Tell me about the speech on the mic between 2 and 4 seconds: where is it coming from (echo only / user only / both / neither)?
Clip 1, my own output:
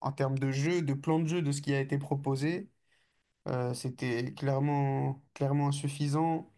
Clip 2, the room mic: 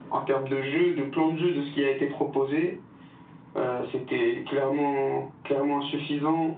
echo only